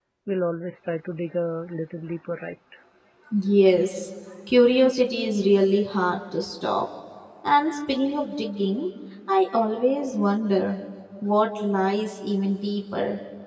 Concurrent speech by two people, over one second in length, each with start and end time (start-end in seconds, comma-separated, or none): none